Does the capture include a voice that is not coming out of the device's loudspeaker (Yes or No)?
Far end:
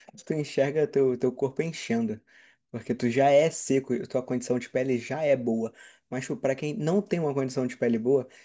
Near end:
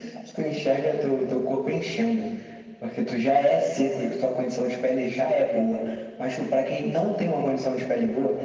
No